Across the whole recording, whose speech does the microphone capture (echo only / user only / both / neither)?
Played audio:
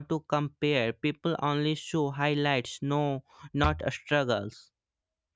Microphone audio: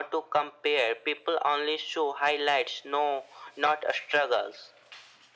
echo only